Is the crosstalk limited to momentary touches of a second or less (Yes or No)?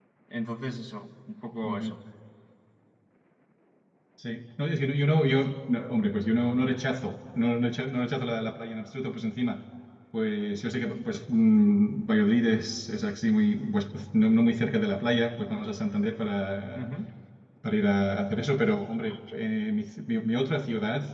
Yes